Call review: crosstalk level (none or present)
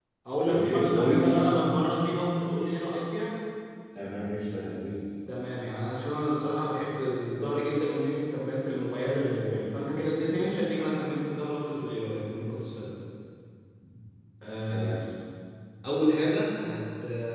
present